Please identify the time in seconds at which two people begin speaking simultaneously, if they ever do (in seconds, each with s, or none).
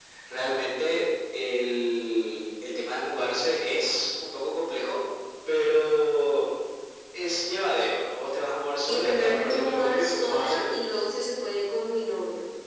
8.9 s